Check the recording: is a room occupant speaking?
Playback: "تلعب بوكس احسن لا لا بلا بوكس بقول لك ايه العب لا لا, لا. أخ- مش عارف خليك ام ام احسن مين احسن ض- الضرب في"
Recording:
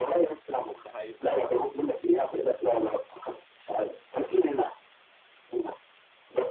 Yes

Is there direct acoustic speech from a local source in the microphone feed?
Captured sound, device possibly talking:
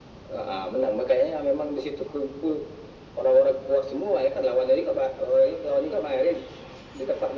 No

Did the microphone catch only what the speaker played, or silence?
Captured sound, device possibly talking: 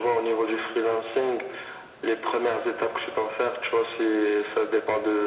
Yes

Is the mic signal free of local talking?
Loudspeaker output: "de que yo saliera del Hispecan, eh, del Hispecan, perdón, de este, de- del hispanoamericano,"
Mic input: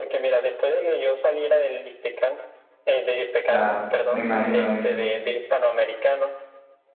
No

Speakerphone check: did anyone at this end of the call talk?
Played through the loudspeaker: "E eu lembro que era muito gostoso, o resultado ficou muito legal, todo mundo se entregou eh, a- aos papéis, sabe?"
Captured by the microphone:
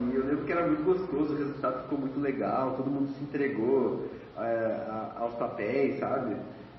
No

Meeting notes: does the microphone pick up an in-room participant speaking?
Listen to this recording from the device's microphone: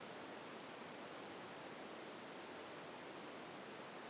No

